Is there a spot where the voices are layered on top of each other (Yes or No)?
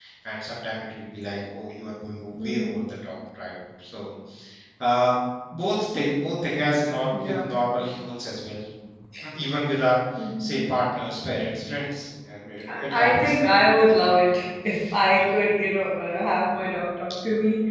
Yes